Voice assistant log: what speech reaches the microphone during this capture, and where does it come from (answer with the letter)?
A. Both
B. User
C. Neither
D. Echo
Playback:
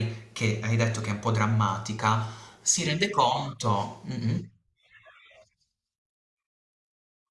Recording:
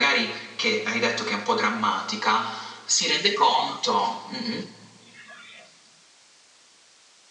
D